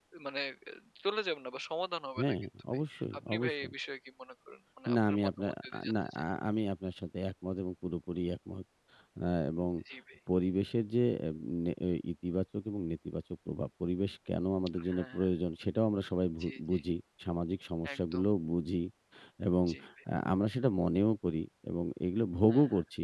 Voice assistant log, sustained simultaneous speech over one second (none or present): present